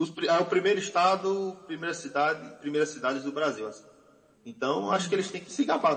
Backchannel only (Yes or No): Yes